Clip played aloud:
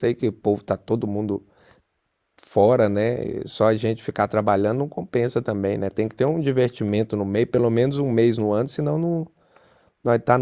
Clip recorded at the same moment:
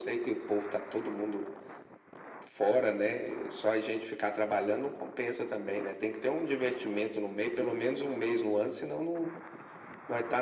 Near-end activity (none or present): none